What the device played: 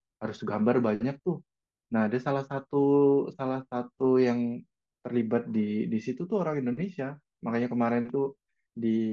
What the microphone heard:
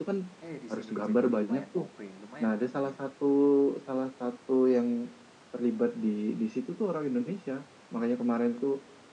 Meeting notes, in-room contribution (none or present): present